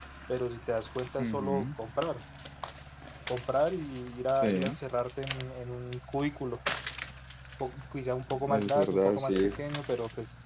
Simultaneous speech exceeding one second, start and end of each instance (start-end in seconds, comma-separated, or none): 8.3-9.5